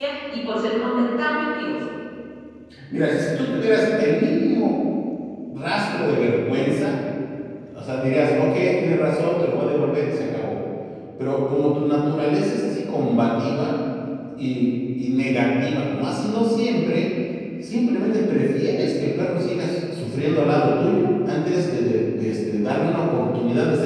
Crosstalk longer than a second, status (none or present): none